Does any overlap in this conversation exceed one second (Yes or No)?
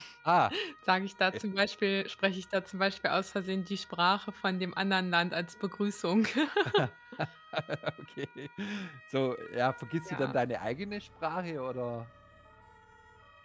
No